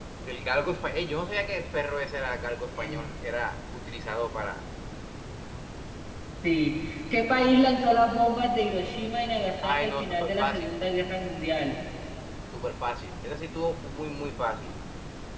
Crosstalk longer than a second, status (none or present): present